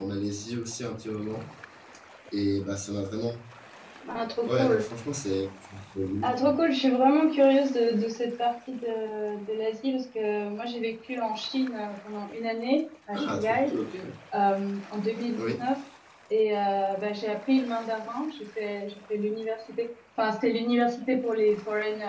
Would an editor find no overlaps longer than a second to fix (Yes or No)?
Yes